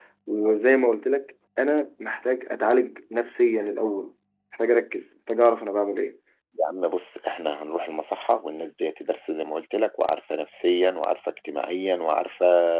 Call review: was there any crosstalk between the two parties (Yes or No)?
No